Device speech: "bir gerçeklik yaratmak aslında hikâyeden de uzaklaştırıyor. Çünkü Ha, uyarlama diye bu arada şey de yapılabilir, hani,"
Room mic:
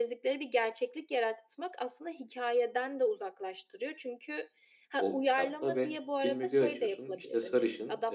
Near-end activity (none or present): present